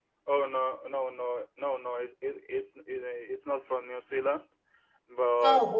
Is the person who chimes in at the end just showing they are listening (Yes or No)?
Yes